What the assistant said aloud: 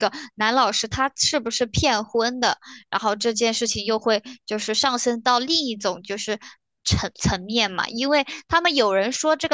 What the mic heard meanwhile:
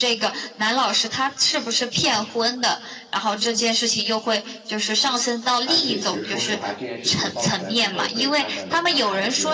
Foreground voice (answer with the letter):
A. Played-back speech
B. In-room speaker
A